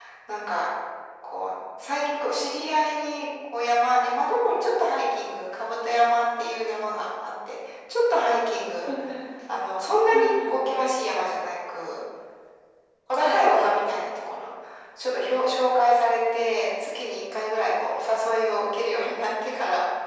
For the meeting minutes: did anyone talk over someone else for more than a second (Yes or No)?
No